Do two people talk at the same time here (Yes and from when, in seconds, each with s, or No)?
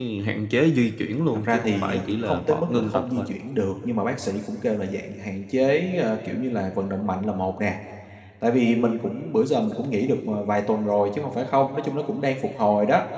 Yes, from 1.3 s